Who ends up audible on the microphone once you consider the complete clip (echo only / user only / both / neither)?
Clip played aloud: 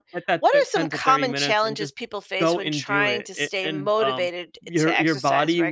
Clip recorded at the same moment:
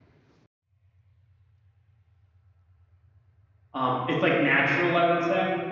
user only